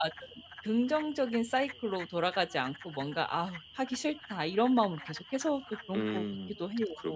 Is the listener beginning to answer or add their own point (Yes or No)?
Yes